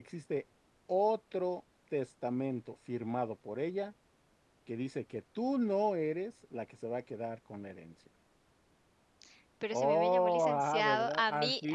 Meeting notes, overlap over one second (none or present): present